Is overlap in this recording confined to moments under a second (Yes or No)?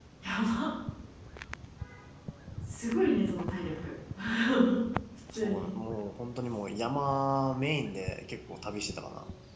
Yes